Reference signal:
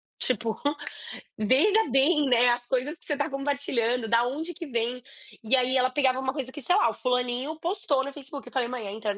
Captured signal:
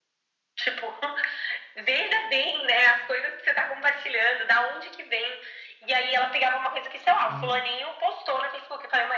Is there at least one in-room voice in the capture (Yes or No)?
Yes